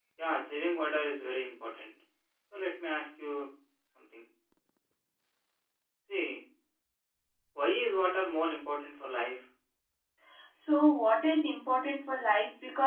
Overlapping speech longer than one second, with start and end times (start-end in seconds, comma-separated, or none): none